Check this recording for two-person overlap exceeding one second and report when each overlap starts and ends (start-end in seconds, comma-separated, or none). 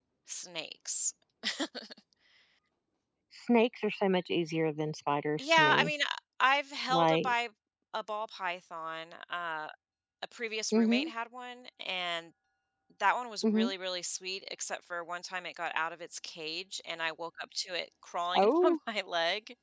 none